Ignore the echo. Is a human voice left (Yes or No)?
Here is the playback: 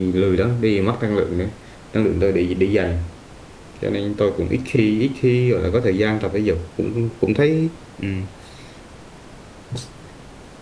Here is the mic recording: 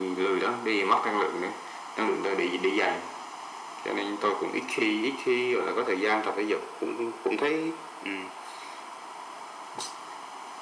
No